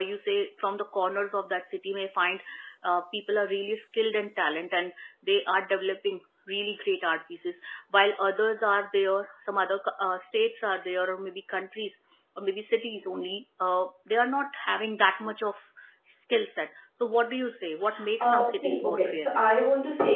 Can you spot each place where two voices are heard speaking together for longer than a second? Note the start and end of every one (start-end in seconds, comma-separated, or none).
18.2-19.4